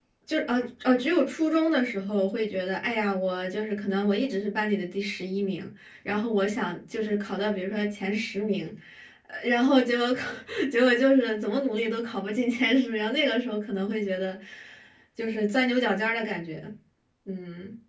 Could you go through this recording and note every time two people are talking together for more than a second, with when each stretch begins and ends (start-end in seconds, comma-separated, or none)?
none